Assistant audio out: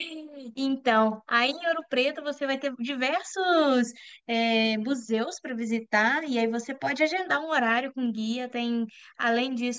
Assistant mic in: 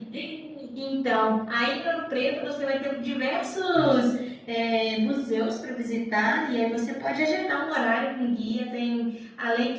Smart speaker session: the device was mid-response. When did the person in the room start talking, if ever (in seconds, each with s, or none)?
3.7 s